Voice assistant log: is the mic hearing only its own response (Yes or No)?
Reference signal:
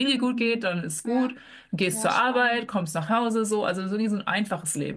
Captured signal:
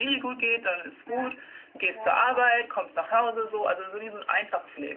Yes